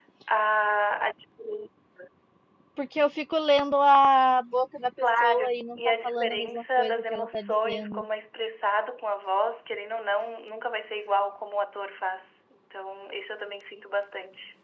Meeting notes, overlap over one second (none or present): present